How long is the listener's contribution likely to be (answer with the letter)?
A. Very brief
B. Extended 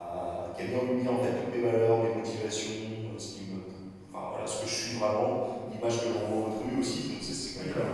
A